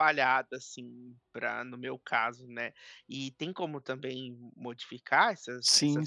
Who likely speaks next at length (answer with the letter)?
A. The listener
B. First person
A